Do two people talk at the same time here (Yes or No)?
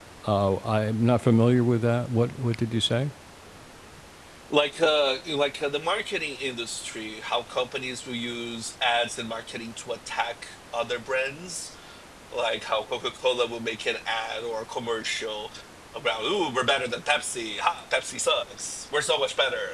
No